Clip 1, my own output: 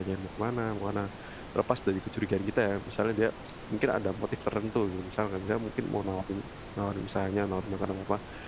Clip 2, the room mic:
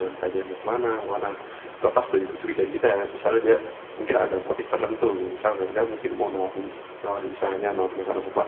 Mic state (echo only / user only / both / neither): echo only